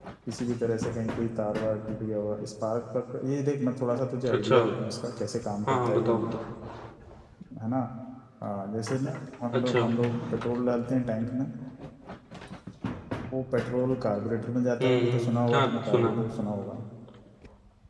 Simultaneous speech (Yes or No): Yes